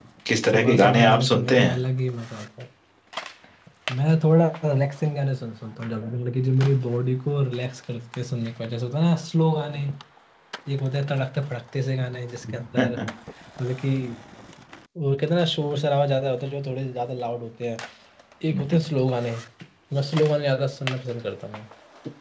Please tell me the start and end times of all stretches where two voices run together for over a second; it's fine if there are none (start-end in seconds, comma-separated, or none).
0.5-1.8